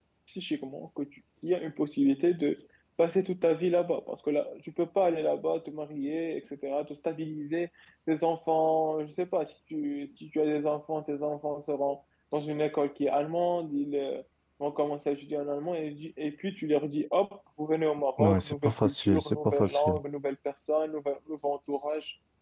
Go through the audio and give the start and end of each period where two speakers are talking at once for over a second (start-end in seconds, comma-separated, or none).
18.2-19.9